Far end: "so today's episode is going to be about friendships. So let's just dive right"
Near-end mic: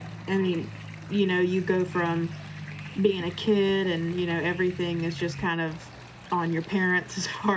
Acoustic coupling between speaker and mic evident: No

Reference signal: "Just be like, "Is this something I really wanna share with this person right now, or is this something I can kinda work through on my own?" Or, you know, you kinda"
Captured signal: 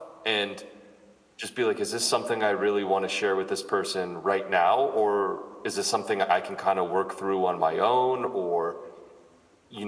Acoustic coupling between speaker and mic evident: Yes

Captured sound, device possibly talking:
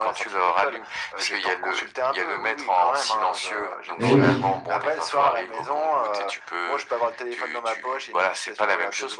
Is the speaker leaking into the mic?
Yes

